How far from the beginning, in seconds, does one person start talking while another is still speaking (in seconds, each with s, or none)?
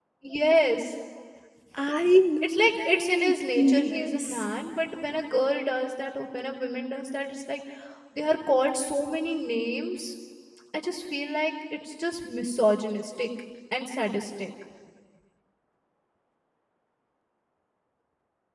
2.4 s